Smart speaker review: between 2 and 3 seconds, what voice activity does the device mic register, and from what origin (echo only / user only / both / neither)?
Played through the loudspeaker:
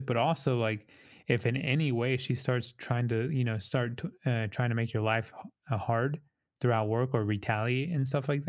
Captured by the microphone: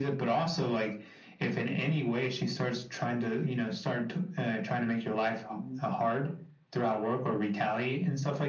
echo only